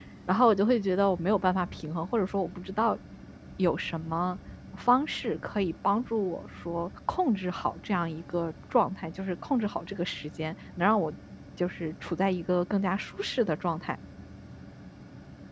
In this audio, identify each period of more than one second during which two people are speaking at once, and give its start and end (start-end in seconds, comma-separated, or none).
none